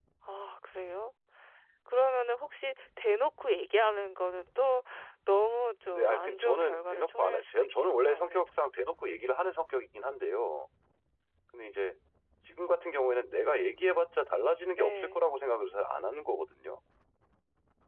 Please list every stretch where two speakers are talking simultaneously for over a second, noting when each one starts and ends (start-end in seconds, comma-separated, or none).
5.9-8.5